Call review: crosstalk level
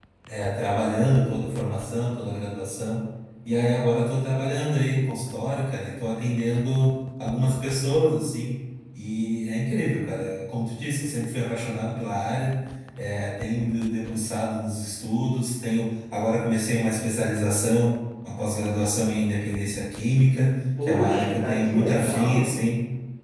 present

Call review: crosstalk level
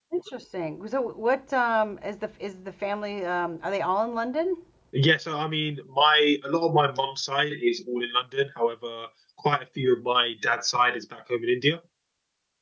none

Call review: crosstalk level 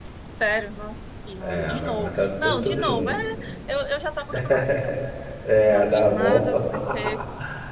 present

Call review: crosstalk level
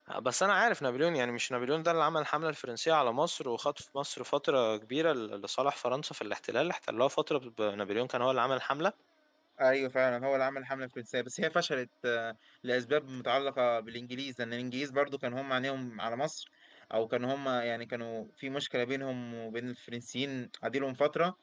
none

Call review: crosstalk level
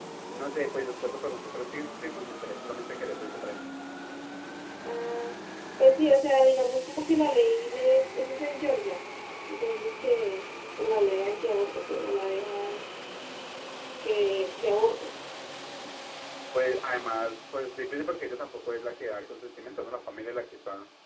none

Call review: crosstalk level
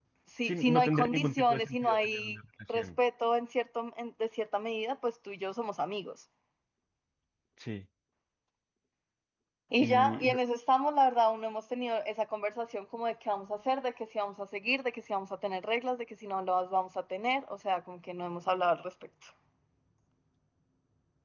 present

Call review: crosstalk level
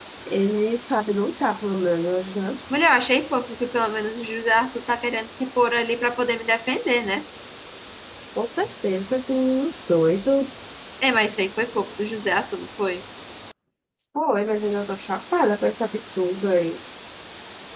none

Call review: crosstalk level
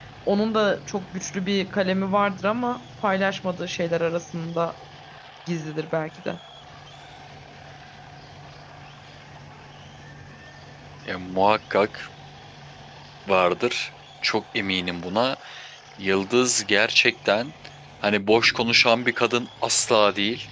none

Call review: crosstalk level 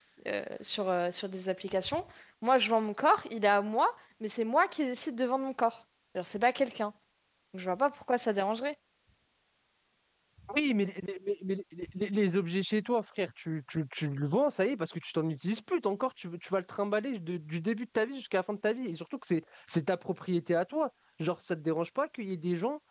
none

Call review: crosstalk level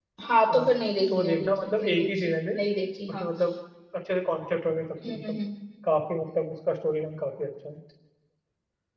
present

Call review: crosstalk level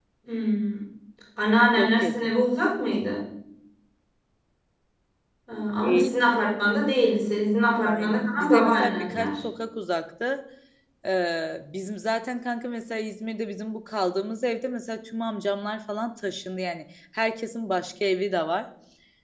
present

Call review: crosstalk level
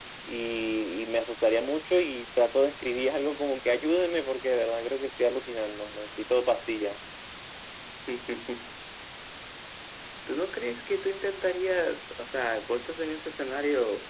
none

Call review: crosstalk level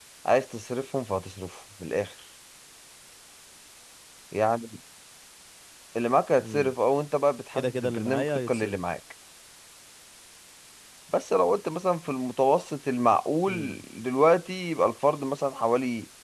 present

